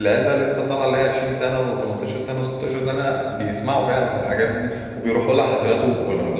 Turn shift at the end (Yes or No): Yes